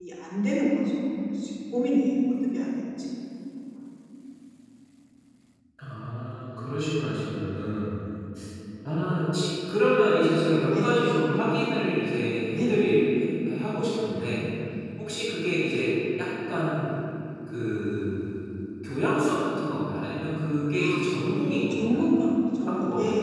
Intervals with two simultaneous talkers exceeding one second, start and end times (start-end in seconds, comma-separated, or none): 20.8-22.1